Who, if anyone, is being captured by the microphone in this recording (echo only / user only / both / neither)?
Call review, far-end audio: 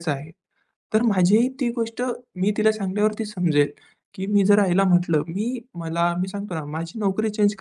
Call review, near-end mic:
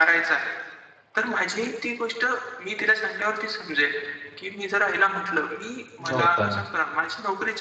both